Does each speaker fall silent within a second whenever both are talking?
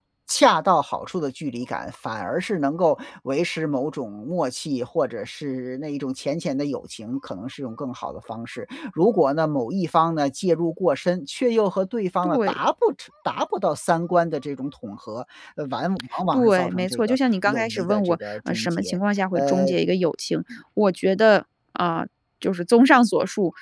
No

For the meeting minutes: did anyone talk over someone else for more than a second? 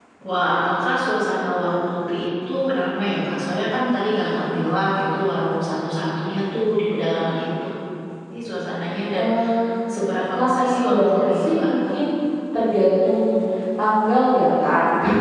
Yes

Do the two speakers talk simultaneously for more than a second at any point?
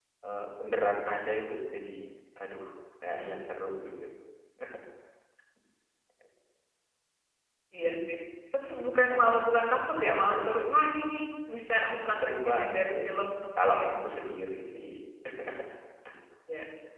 Yes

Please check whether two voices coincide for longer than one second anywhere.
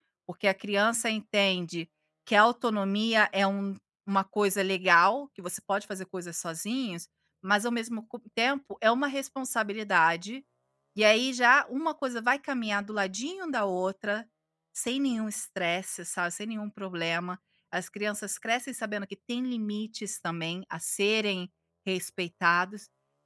No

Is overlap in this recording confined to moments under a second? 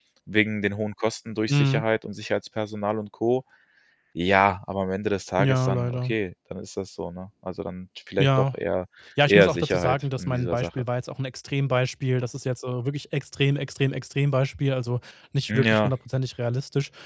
No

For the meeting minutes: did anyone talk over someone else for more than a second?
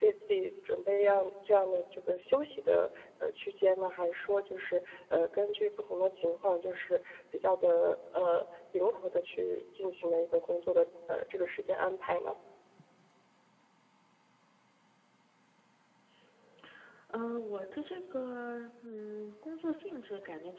No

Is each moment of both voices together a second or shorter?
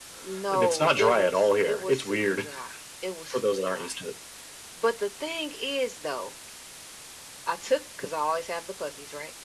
No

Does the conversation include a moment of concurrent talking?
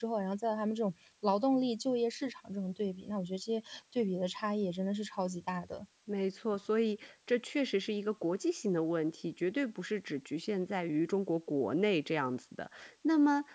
No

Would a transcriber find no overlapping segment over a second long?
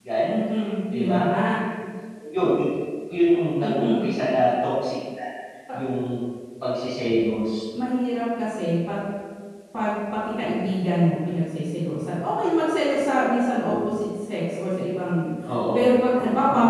Yes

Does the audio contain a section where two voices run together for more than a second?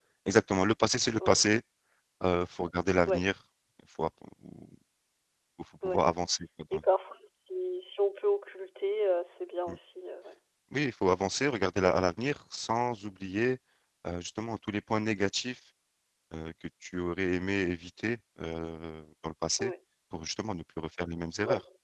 No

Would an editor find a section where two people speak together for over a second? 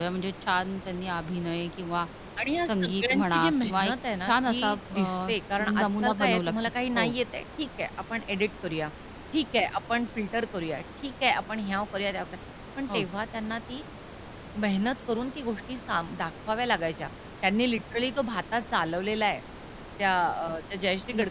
Yes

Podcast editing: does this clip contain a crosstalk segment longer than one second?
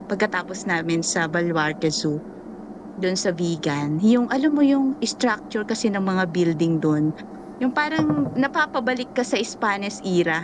No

